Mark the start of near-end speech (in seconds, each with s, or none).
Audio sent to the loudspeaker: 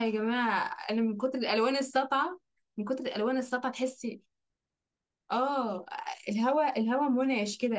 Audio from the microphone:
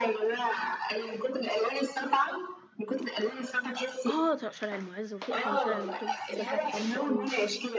4.1 s